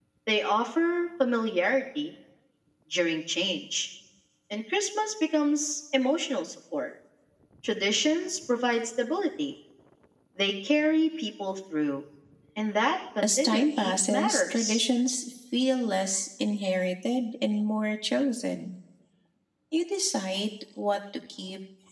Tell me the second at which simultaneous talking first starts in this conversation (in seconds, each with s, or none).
13.2 s